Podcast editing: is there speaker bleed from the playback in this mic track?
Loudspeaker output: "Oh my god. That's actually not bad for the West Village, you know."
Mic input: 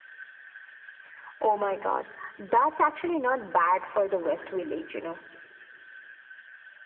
Yes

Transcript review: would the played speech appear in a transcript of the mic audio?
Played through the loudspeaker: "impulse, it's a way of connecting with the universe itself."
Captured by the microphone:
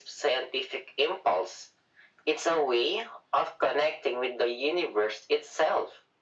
Yes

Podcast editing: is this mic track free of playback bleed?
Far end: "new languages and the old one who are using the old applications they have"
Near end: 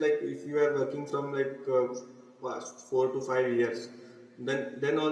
Yes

